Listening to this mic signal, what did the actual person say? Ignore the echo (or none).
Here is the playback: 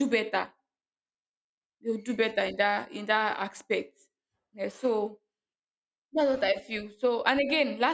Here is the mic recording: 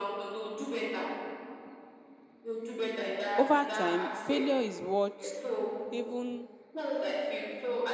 Over time, failure is what even